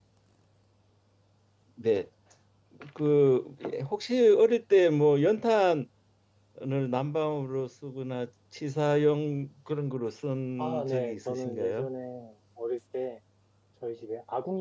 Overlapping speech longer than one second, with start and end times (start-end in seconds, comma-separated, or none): 10.6-11.9